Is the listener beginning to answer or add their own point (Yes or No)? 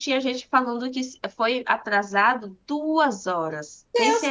Yes